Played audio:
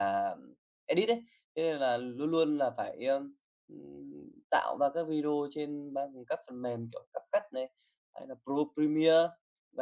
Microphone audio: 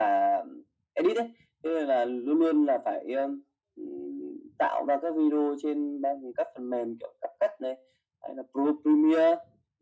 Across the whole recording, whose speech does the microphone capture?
echo only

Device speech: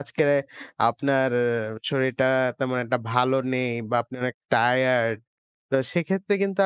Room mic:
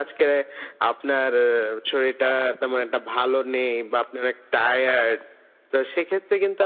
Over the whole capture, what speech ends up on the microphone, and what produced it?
echo only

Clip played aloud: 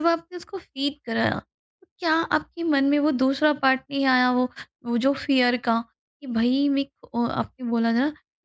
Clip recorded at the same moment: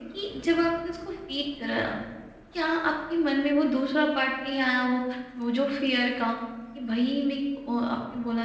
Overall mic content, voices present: echo only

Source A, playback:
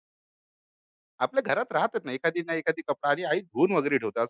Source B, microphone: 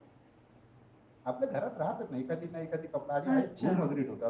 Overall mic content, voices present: both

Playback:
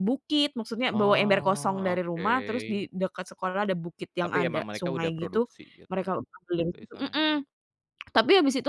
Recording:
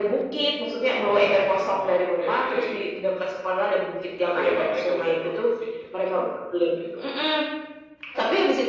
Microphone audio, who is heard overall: echo only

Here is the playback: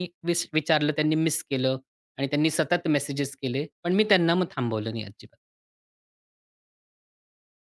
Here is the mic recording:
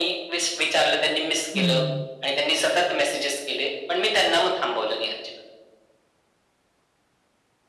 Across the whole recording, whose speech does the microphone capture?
both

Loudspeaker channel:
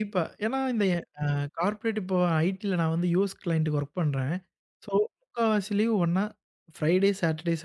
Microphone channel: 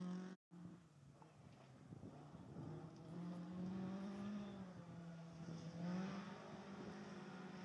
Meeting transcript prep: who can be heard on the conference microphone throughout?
neither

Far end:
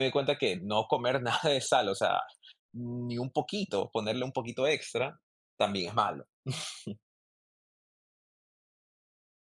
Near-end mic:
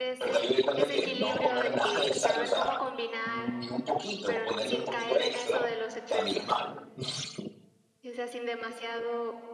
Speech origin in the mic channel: both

